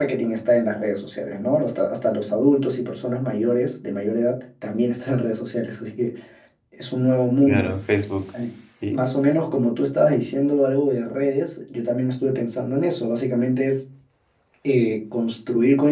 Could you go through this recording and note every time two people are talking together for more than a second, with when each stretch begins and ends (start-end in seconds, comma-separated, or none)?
none